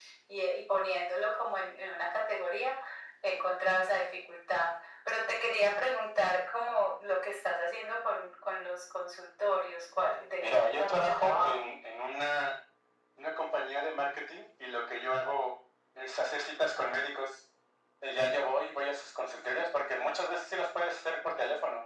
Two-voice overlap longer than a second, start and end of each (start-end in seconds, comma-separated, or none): 10.4-11.7